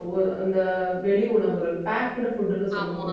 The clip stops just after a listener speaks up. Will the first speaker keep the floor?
Yes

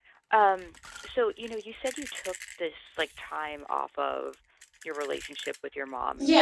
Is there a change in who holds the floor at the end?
Yes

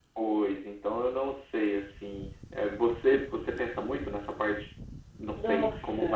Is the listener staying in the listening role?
Yes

